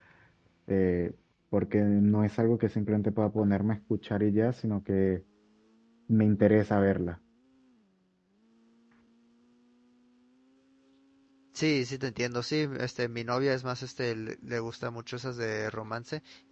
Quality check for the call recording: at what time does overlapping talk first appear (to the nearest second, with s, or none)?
none